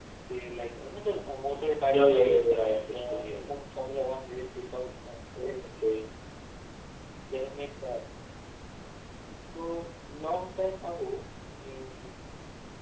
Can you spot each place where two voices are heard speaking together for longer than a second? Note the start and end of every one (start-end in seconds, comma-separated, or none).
1.9-3.5